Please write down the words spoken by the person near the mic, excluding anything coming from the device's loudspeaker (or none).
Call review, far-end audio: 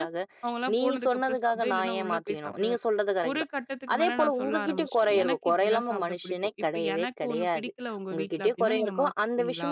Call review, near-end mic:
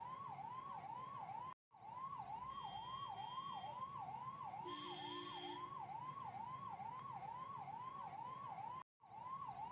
none